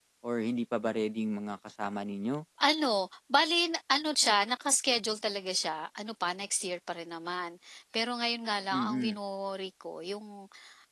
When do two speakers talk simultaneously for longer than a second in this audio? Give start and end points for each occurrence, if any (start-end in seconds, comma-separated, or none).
none